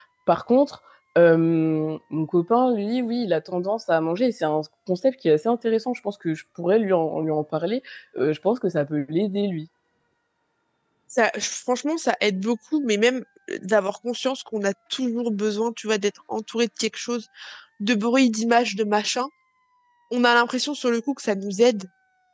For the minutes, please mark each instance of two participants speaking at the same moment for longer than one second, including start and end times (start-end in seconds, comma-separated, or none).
none